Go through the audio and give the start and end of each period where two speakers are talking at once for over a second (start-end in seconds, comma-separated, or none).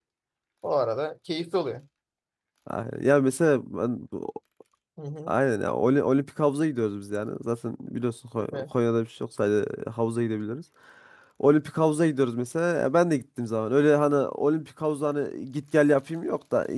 none